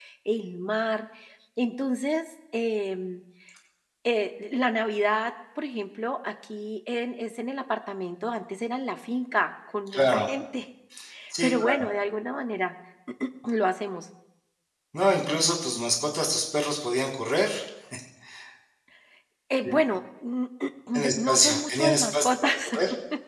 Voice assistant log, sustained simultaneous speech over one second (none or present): present